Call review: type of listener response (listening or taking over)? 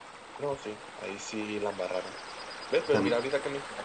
listening